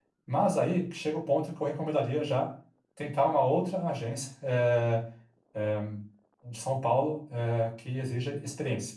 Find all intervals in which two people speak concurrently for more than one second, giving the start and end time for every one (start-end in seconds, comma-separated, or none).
none